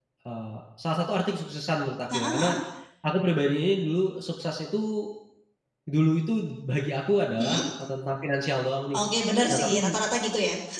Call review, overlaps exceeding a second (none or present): none